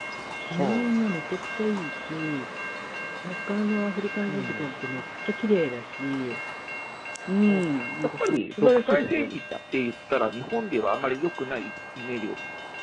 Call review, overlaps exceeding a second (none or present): present